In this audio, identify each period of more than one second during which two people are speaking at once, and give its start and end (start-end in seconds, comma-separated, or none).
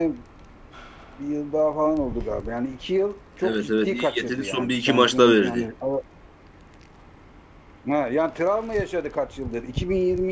3.4-5.7